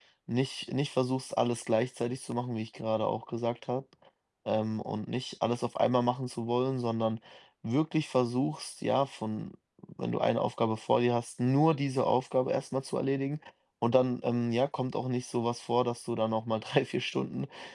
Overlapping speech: No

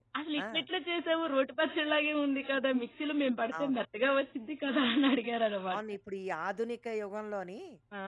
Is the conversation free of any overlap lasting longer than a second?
Yes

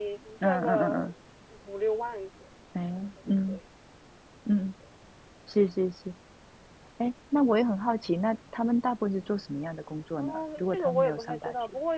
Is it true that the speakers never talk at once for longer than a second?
No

